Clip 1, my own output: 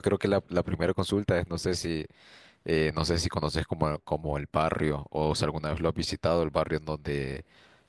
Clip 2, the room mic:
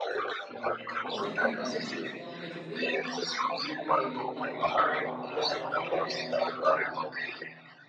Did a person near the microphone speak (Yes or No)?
Yes